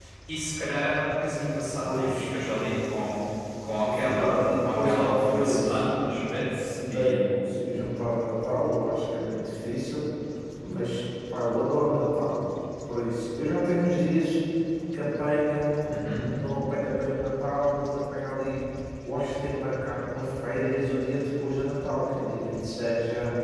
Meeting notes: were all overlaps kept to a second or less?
No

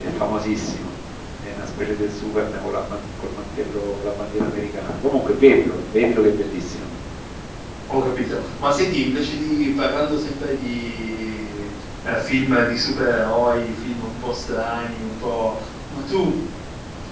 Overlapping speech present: No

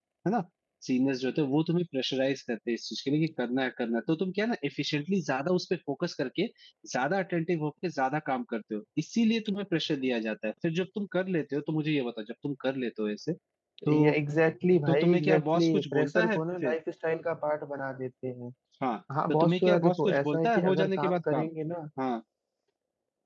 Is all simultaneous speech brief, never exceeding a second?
No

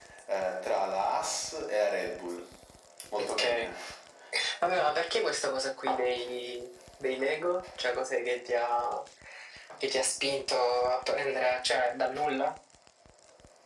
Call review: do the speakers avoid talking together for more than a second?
Yes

